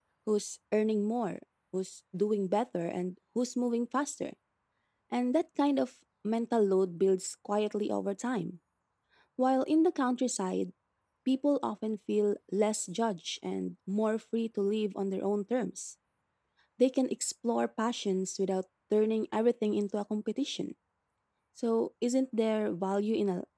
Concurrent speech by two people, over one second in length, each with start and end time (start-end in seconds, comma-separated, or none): none